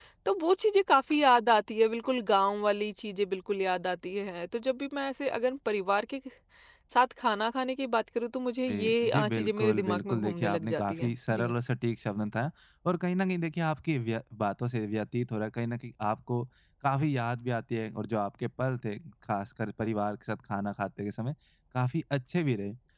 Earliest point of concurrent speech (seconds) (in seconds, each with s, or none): 8.7 s